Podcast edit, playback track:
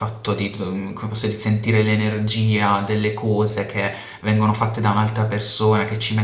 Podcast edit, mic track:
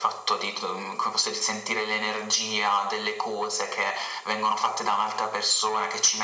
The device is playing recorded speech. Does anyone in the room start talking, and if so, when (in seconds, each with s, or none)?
none